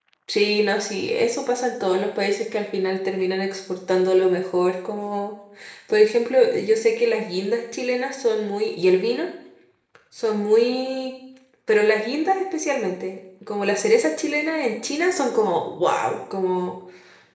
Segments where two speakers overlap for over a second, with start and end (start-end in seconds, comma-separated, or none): none